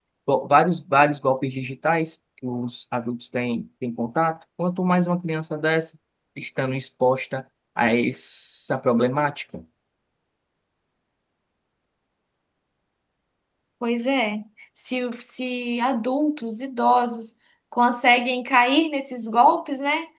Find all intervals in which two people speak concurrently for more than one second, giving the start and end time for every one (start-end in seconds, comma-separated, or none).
none